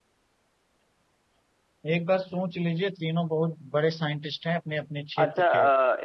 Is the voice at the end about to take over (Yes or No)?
Yes